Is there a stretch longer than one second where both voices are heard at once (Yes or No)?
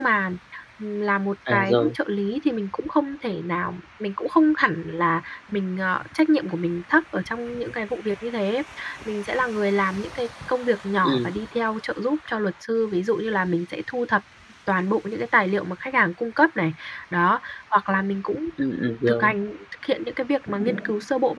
No